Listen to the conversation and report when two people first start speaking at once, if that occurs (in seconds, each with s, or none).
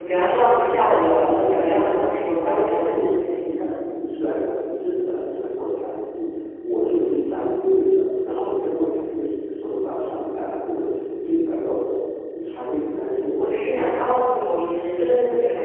0.6 s